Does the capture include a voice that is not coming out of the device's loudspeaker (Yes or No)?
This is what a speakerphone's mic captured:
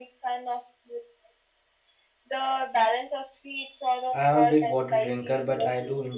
Yes